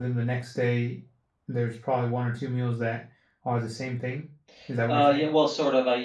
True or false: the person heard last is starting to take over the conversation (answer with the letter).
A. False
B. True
B